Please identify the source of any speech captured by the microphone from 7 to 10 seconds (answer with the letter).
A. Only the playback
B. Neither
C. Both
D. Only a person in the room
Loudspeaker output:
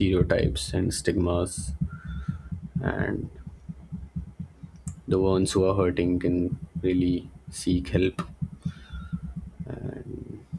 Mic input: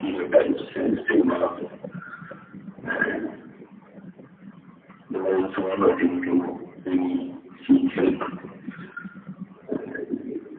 A